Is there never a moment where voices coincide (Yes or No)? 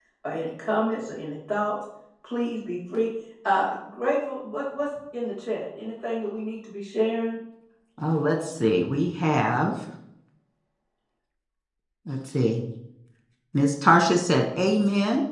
Yes